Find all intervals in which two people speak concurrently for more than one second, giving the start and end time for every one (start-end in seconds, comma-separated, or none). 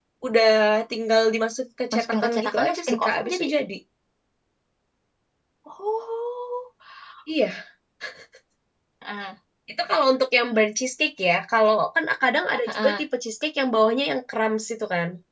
1.9-3.5